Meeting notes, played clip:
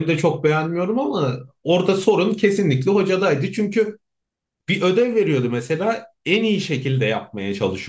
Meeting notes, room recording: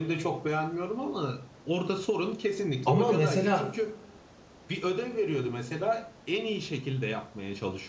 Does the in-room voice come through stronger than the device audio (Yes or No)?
Yes